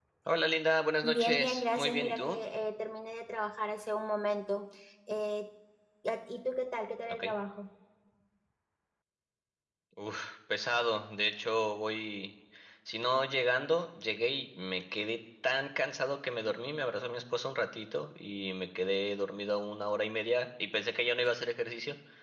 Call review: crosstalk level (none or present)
present